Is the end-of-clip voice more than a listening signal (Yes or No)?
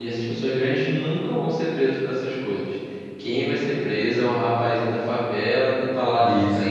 No